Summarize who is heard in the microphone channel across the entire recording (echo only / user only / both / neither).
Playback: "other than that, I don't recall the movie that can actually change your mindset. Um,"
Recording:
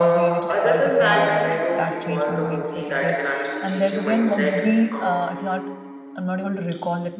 both